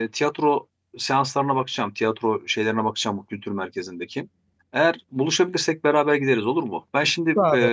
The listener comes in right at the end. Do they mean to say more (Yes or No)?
No